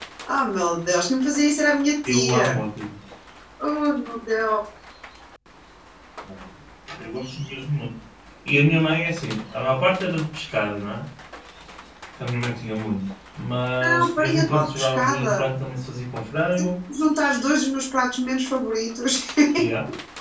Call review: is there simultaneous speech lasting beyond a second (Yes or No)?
Yes